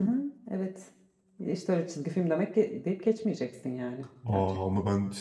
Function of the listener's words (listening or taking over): taking over